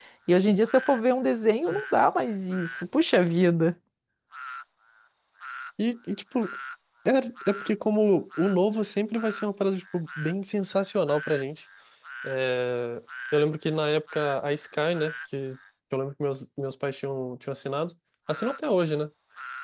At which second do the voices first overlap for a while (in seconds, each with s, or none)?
none